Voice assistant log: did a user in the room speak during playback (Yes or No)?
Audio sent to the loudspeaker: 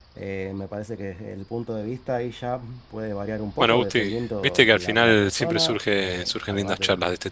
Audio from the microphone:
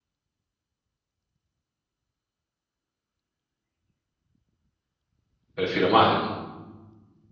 Yes